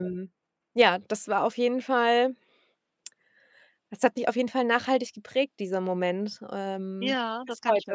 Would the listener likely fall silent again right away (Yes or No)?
No